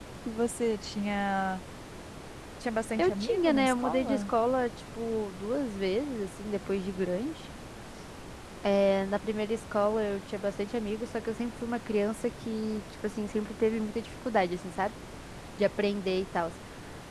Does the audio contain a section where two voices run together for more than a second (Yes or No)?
Yes